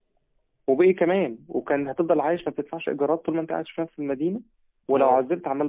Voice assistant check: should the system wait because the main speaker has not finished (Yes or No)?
Yes